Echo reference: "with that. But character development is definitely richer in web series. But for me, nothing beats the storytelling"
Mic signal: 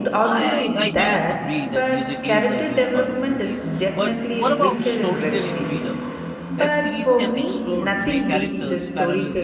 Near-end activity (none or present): present